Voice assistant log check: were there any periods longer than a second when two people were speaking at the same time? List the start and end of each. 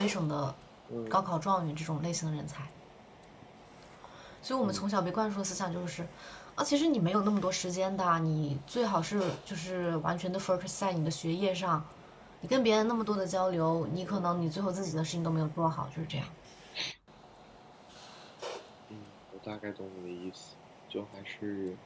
none

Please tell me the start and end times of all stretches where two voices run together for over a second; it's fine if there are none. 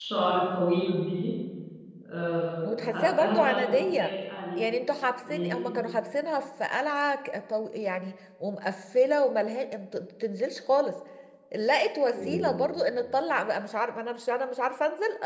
2.6-4.1

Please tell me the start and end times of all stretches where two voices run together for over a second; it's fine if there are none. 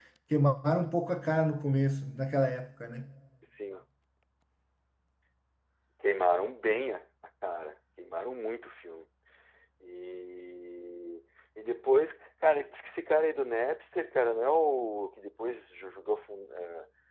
none

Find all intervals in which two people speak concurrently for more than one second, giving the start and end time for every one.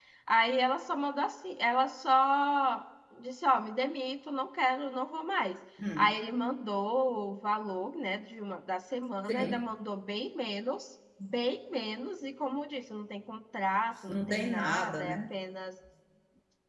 14.1-15.3

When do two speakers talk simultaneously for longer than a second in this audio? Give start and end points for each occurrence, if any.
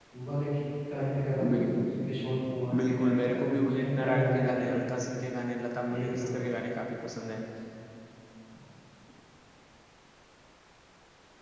2.9-4.7

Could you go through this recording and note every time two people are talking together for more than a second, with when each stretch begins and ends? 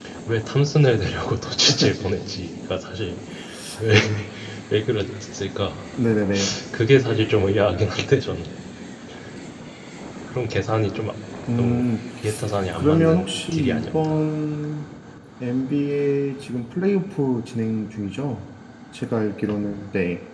12.7-14.2

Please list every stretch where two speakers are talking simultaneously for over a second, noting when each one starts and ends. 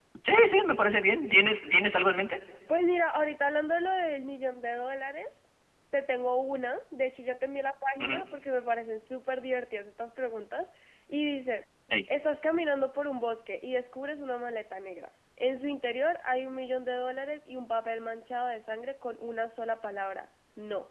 none

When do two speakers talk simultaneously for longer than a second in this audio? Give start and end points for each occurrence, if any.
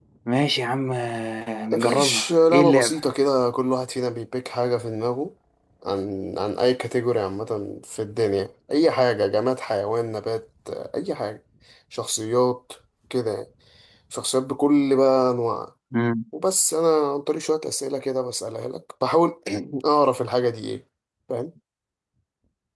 1.7-3.0

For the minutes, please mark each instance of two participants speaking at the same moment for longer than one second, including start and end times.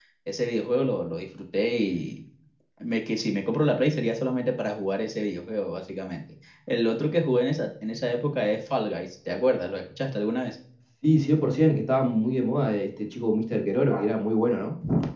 none

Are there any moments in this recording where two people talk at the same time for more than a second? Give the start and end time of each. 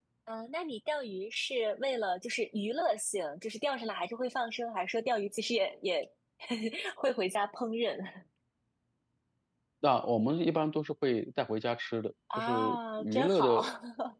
12.4-13.6

